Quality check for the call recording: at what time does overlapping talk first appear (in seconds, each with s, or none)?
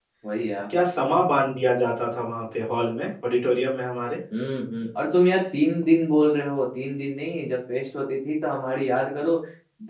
none